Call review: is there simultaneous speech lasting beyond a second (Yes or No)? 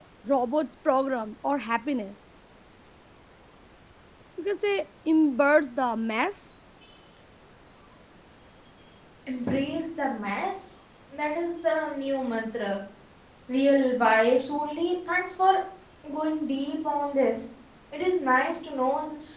No